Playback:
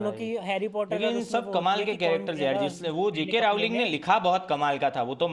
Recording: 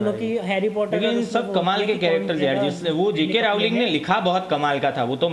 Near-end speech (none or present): none